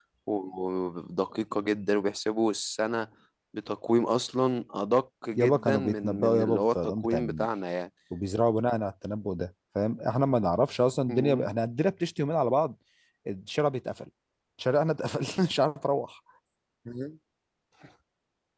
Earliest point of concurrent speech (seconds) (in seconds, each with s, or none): 5.4 s